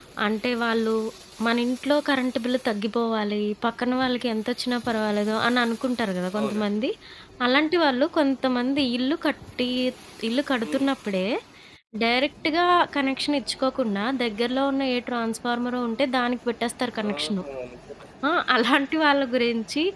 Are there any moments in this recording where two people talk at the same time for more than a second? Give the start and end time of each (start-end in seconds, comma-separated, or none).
none